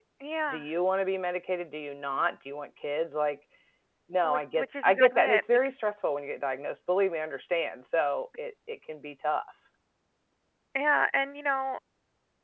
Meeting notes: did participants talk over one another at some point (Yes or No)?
Yes